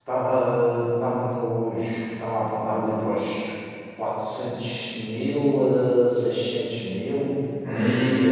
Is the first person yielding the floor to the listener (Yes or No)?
Yes